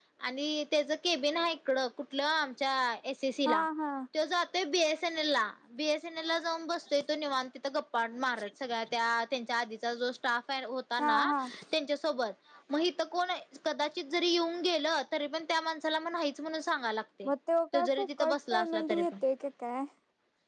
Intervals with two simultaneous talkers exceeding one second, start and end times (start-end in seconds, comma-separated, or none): 17.7-19.1